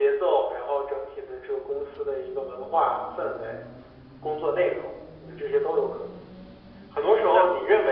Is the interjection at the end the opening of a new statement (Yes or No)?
No